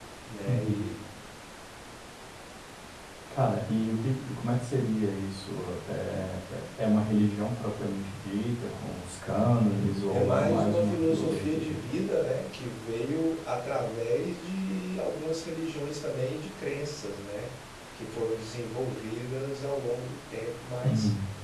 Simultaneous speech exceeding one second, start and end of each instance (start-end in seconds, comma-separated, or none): 10.1-11.7